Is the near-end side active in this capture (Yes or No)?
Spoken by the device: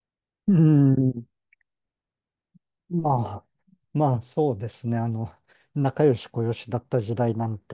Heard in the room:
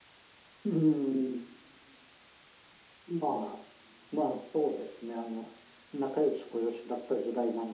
No